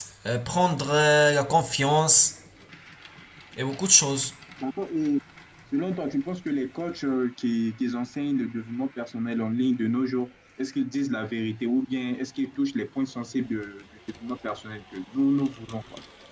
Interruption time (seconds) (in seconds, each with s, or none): none